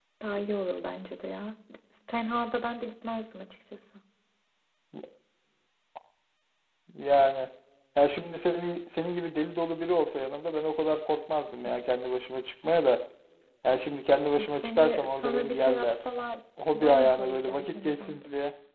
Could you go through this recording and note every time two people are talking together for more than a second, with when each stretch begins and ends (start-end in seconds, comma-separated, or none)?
14.4-16.0, 16.7-18.2